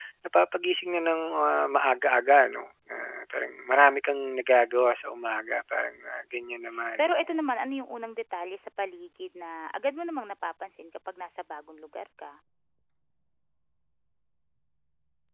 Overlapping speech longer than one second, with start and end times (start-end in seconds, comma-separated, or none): none